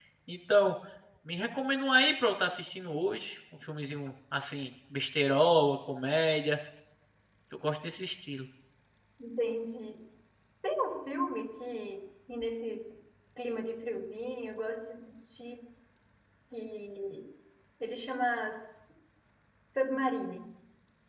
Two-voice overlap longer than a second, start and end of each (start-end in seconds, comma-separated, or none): none